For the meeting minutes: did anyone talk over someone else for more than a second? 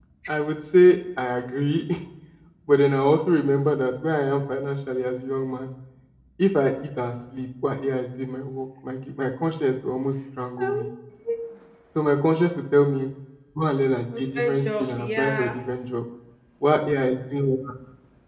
Yes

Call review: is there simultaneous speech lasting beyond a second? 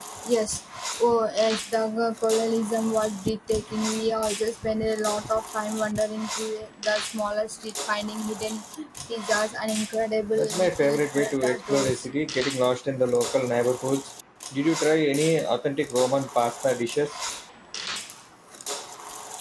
Yes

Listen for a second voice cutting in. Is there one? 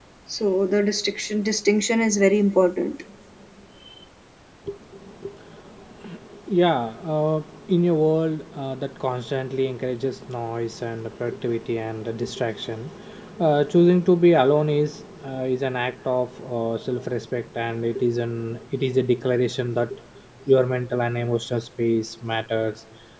No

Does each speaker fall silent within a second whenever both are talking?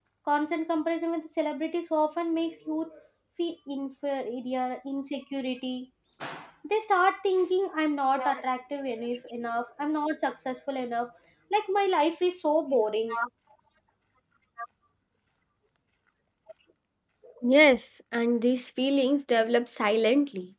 Yes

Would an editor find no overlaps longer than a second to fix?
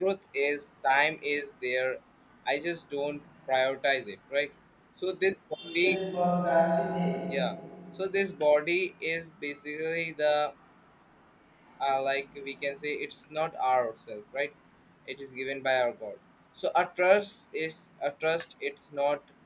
Yes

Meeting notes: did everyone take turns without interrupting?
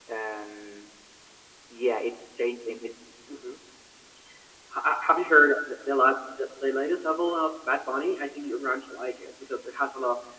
Yes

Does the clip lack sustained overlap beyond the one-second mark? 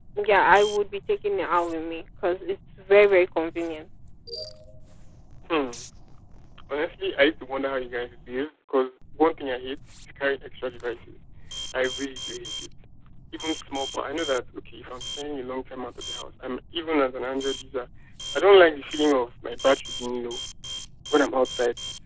Yes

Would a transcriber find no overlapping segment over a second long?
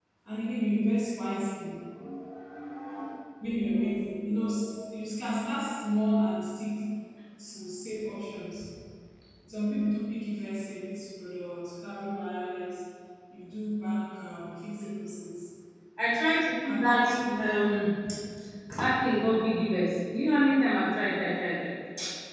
Yes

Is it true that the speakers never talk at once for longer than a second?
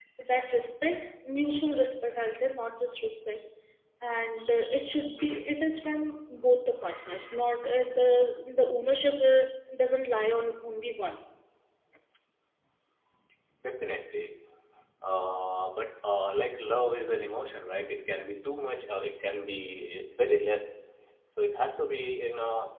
Yes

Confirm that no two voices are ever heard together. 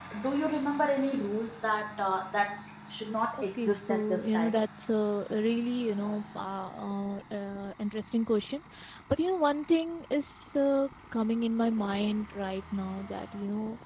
No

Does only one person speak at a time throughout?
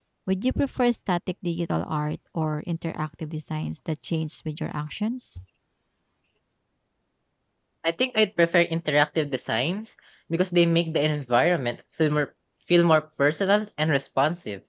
Yes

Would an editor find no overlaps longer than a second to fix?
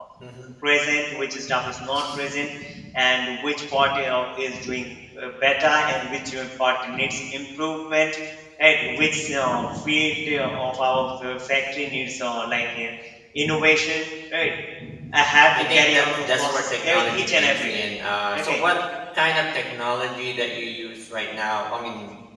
No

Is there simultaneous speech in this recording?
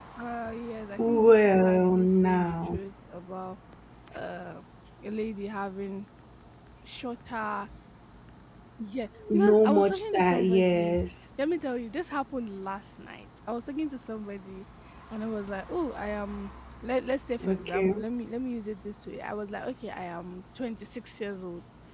Yes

